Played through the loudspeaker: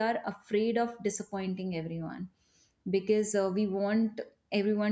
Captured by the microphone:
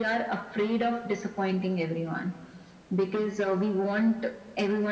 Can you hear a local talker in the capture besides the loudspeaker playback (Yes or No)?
No